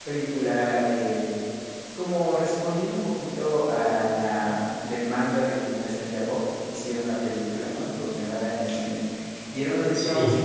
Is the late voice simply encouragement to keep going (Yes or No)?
Yes